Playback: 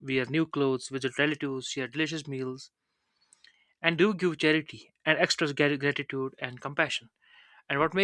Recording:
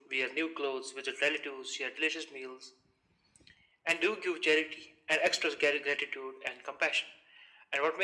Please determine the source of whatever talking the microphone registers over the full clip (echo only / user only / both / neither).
echo only